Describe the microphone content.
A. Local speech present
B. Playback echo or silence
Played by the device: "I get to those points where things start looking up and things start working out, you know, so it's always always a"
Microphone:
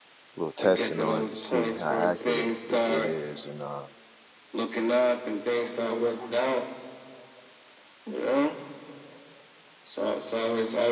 A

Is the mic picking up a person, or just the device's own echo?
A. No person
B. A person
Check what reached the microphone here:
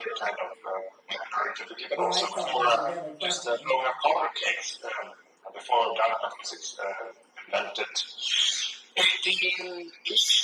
B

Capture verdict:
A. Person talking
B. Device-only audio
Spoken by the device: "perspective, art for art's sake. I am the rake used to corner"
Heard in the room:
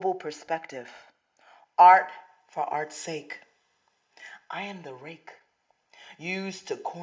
B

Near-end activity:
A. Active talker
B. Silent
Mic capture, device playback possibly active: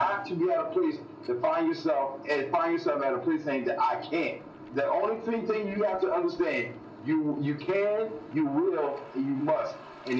B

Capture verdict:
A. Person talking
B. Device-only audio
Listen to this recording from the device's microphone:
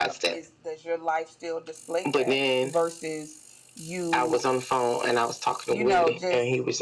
A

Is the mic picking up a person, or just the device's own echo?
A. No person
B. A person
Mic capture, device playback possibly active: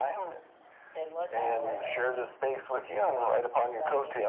A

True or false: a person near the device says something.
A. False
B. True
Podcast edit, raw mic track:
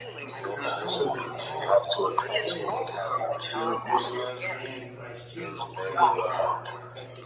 B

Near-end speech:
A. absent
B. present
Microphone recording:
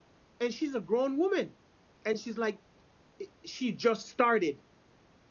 B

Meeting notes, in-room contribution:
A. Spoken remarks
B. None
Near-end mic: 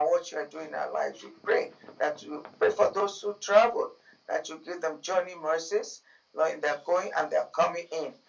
B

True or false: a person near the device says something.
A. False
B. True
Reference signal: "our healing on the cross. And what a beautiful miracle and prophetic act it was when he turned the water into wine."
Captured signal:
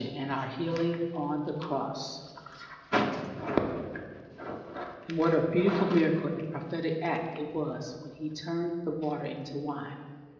A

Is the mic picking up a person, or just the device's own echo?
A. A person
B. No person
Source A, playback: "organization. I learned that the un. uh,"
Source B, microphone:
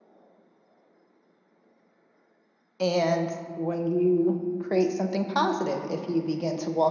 A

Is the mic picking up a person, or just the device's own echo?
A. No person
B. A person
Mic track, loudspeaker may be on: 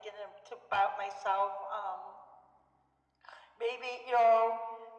A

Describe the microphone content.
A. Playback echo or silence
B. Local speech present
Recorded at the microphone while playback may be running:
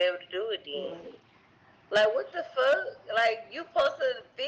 B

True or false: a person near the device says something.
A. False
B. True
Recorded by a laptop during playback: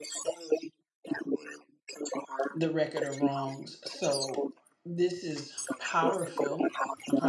B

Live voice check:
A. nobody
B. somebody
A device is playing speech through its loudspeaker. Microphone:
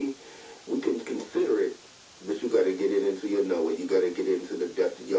A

